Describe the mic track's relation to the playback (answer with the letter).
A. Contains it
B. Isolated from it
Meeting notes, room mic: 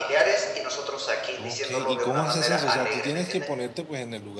A